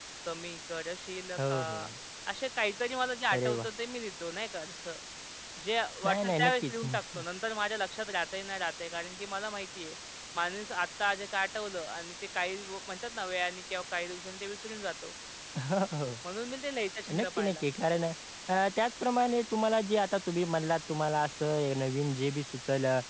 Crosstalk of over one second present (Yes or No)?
Yes